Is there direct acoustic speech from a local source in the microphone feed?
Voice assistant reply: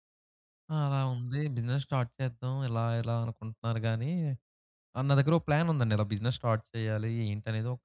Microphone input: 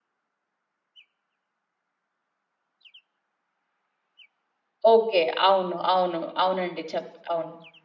Yes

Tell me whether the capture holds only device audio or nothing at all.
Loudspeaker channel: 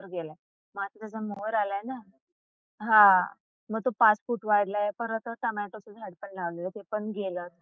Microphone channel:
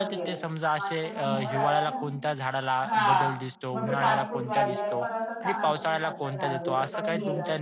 No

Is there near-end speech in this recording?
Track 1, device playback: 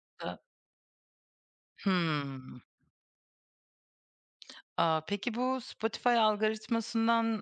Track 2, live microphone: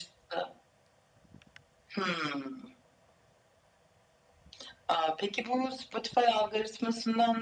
No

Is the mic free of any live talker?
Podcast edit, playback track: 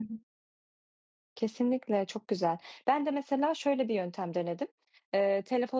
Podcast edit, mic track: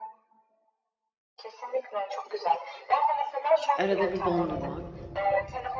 No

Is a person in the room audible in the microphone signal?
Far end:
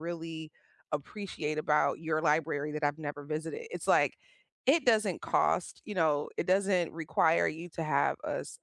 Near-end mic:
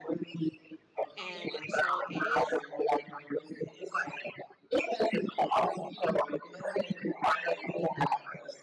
Yes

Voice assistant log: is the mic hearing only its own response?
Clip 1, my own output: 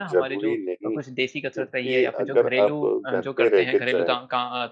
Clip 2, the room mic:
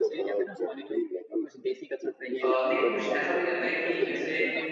No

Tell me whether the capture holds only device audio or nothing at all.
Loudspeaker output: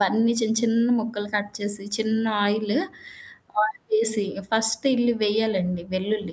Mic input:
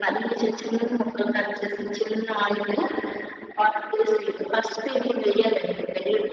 Yes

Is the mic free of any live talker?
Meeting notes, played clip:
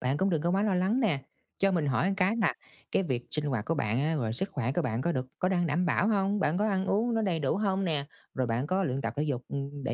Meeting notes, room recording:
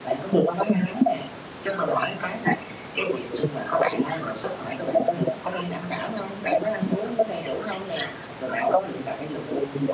Yes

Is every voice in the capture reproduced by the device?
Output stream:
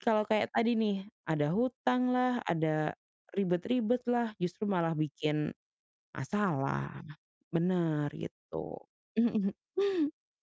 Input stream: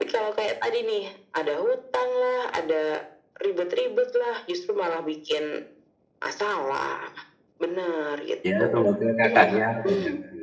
No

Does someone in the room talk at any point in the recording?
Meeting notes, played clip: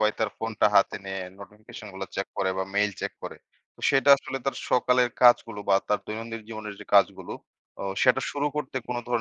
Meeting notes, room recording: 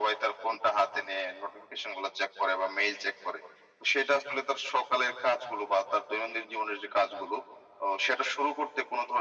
No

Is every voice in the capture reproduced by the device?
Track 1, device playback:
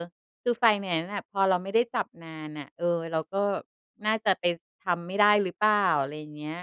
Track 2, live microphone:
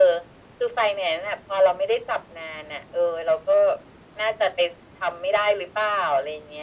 Yes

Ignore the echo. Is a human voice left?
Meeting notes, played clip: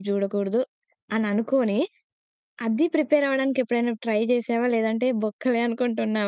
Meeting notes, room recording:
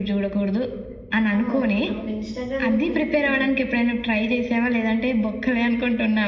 Yes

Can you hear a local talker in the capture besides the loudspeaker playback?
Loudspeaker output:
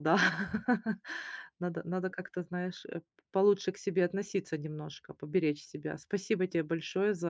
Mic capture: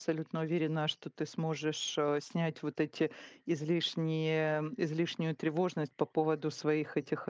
Yes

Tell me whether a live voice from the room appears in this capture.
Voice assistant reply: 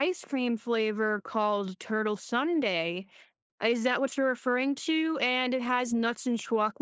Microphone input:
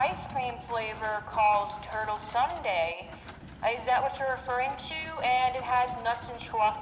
No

